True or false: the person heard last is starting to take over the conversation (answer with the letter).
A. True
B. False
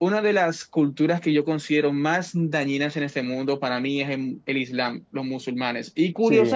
B